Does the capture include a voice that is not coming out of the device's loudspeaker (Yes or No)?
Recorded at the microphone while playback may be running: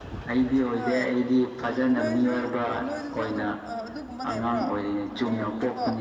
Yes